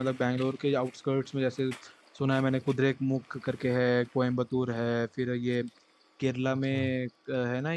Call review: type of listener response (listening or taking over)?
listening